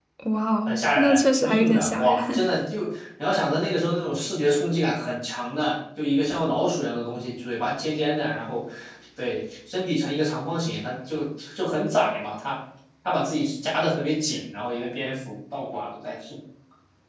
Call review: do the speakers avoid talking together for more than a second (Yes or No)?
No